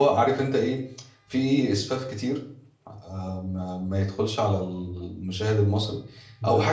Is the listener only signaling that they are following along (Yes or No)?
Yes